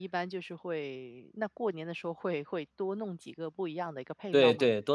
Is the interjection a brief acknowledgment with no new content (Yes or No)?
No